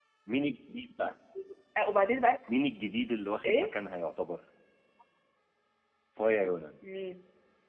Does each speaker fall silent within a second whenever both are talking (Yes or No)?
Yes